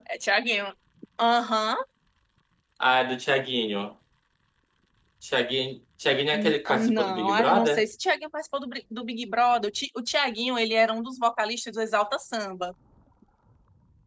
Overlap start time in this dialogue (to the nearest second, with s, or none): 6 s